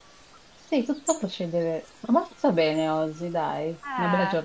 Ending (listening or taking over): taking over